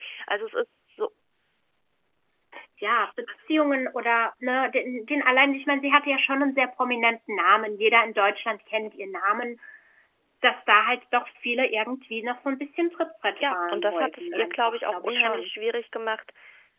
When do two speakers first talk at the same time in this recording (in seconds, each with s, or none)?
13.4 s